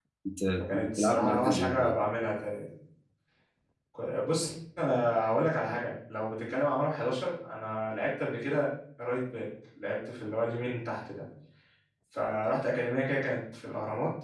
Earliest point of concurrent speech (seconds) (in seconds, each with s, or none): 0.6 s